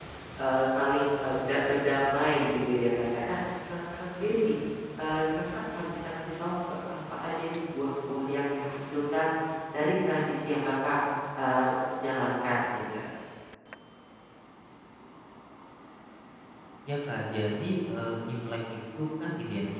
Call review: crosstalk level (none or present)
none